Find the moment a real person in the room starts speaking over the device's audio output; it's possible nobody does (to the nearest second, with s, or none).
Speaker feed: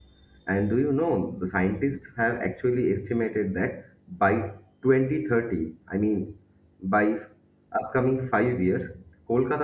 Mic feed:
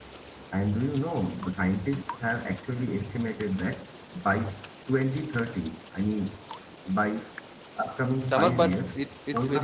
8 s